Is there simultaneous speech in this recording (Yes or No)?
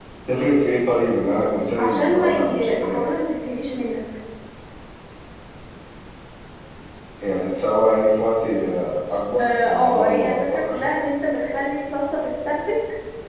Yes